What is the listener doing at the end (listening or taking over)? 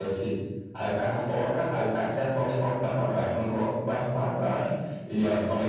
listening